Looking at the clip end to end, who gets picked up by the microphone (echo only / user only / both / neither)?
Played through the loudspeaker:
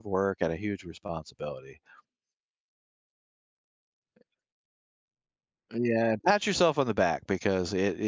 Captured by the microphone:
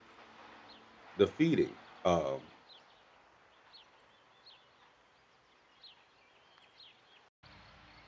user only